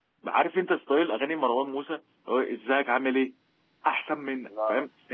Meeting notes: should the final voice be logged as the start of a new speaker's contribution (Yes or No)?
No